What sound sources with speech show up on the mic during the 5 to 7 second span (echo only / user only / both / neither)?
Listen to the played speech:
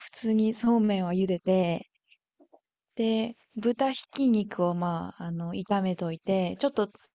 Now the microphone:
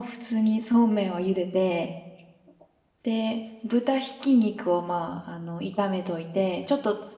echo only